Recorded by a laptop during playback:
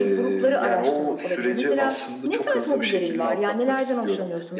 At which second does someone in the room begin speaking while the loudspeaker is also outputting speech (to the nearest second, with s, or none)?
none